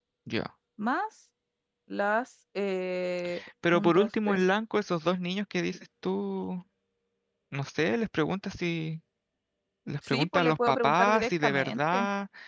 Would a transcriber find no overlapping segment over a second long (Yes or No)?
No